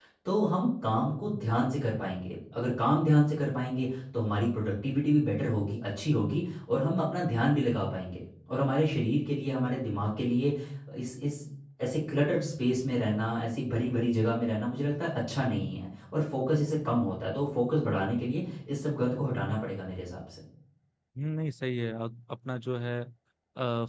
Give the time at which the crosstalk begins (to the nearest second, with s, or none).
none